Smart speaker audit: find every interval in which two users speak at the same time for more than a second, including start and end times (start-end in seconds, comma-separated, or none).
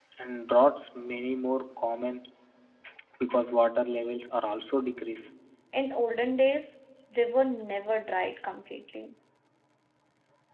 none